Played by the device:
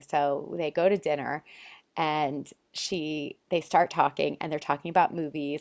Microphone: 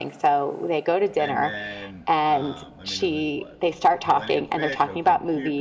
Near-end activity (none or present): present